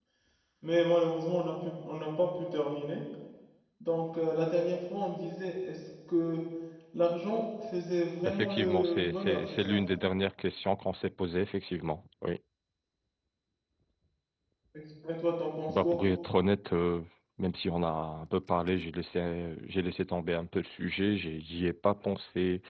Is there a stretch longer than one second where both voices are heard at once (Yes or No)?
Yes